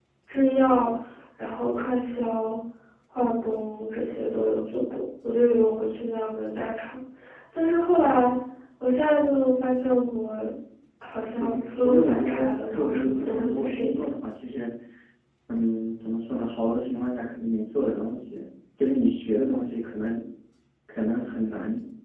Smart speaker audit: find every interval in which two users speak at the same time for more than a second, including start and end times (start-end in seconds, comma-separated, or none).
11.4-14.0